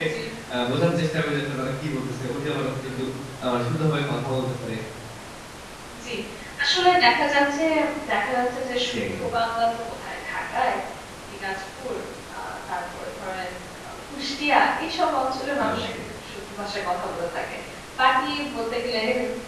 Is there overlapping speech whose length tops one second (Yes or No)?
No